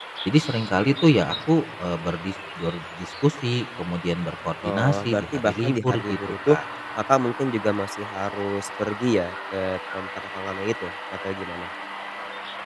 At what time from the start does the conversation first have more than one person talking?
5 s

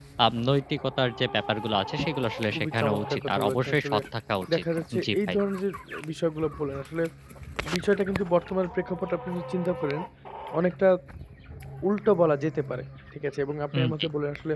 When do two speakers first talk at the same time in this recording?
3 s

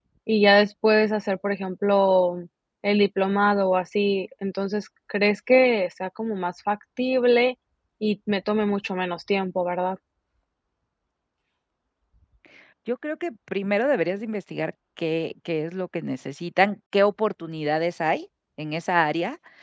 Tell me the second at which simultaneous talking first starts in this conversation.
none

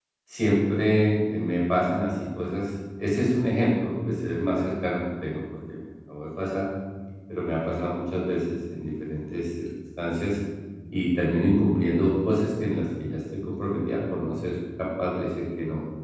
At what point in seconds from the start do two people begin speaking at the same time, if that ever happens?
none

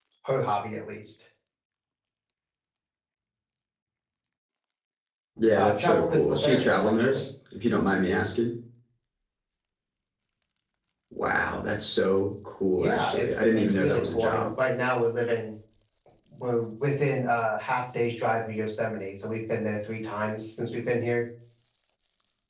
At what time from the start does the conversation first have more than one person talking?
6 s

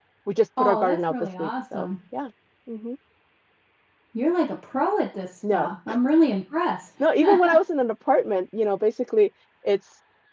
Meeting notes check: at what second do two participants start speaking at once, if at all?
1 s

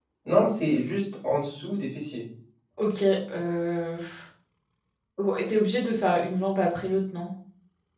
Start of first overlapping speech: none

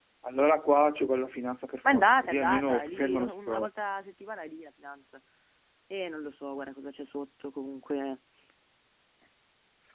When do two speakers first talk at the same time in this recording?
2 s

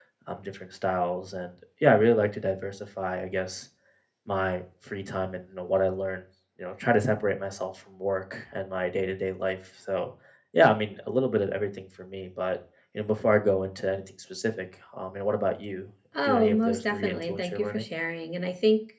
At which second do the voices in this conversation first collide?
16 s

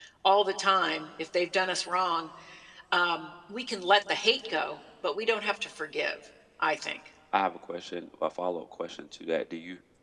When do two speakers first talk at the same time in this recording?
none

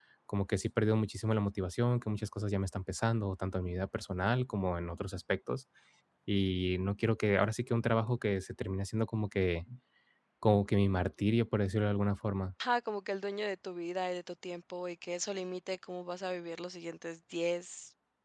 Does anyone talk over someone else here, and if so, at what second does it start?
none

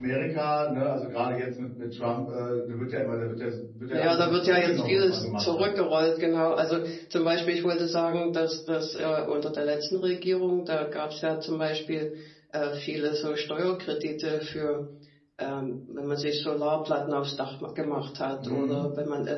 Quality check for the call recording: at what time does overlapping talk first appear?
4 s

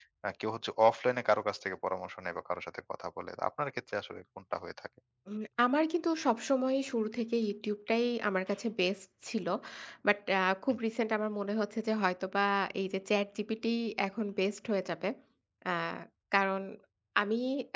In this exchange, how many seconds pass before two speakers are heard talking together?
none

